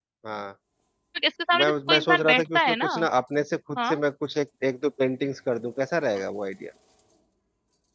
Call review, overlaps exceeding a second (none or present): present